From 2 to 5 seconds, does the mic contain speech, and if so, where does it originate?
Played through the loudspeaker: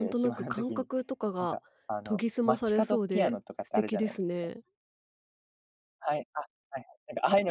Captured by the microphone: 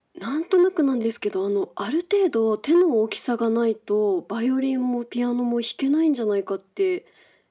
user only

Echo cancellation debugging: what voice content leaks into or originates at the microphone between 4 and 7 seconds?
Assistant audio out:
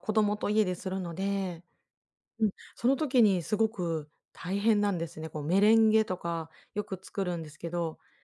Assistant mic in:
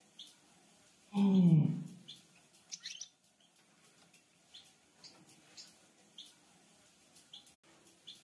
neither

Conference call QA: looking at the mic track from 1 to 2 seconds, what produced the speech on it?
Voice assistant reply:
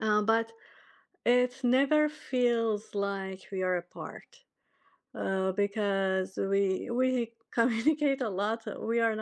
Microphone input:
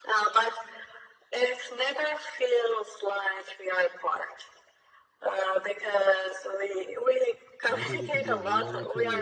echo only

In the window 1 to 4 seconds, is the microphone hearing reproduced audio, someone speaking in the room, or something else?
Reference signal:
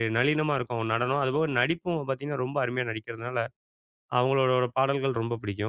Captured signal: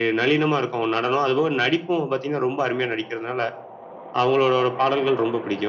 echo only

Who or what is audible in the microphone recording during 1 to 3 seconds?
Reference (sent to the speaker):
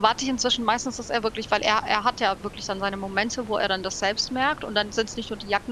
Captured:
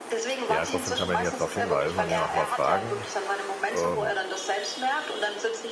both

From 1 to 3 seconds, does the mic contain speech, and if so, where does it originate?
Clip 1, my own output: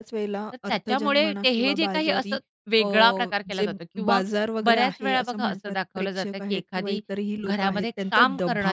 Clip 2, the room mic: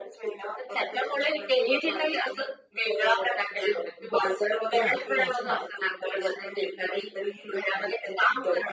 echo only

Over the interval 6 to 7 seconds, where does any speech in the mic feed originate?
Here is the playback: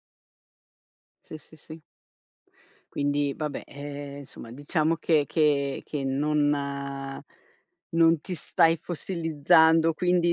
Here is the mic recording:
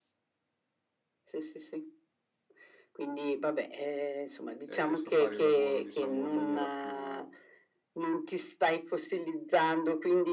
both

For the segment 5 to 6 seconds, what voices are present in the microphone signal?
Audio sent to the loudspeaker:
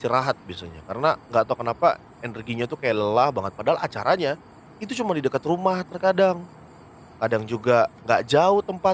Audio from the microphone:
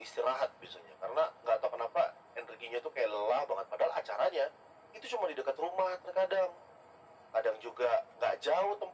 echo only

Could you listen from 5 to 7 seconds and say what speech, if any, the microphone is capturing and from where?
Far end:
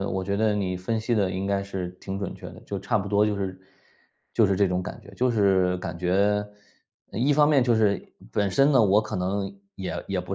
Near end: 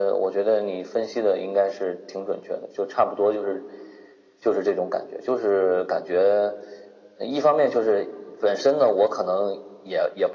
echo only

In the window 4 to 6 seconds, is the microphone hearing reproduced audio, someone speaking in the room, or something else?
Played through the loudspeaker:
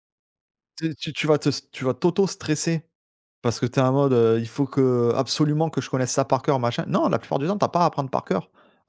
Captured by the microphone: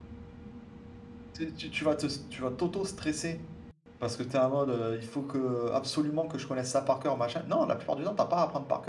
echo only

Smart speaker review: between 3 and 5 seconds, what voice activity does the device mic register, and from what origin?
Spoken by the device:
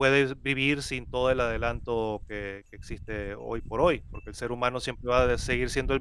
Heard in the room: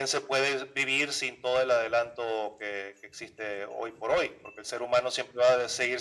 echo only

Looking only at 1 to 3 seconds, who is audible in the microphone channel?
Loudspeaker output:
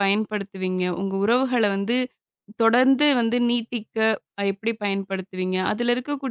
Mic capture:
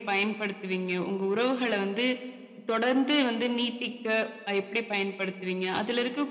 echo only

